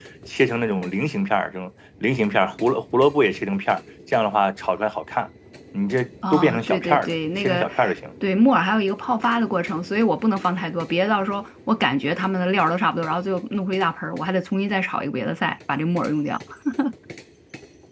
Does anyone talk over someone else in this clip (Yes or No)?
Yes